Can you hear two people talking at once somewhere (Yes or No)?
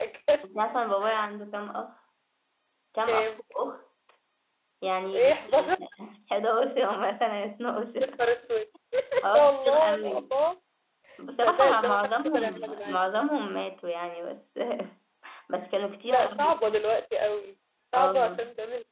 Yes